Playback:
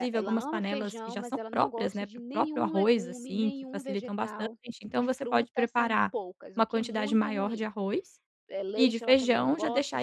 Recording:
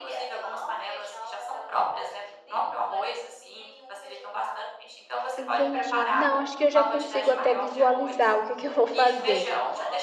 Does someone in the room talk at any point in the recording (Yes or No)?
Yes